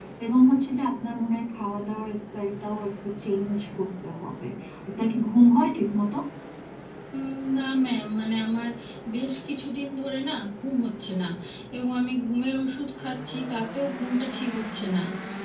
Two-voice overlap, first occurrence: none

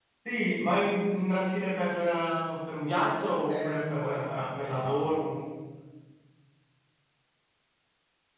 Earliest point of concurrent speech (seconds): 3.5 s

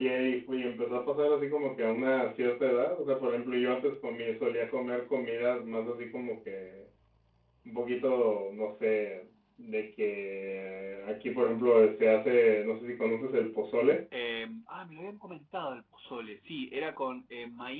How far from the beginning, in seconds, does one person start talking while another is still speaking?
none

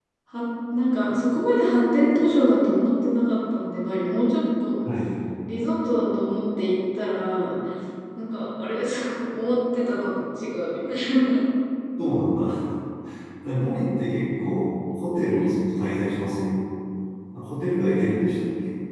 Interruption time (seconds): none

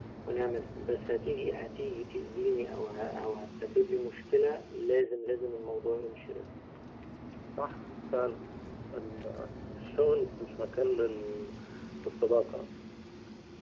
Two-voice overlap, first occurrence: none

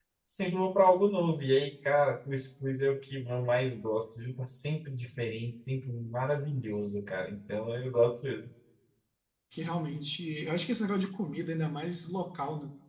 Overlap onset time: none

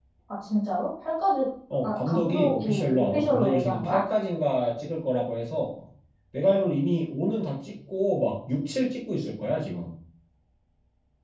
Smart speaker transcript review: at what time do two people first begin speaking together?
1.8 s

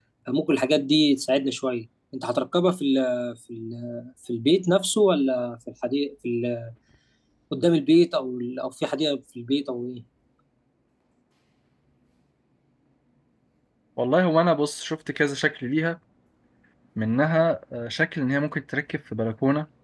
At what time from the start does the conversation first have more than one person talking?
none

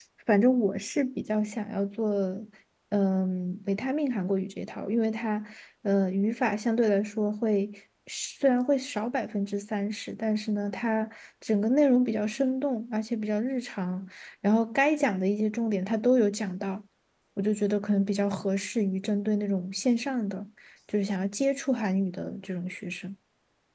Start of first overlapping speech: none

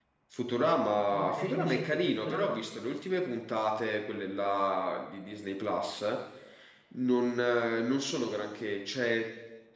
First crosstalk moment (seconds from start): 1.1 s

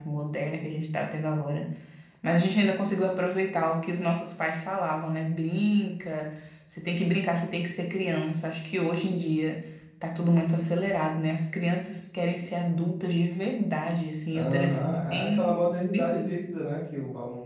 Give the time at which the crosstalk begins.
14.3 s

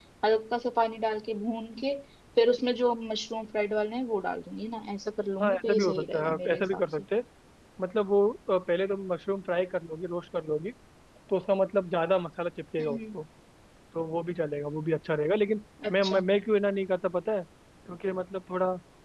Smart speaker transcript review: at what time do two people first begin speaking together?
5.4 s

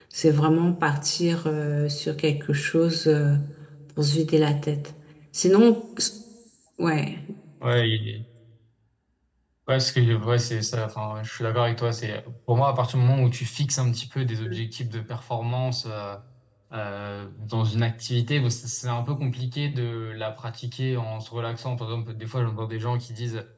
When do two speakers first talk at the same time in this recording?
none

